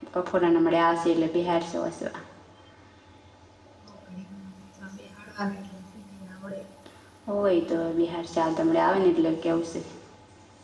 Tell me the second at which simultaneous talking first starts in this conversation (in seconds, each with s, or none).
none